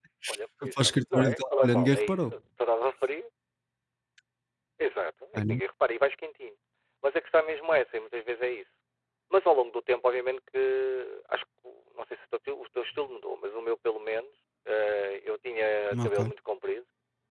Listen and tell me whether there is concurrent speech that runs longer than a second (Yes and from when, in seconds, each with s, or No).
Yes, from 0.6 s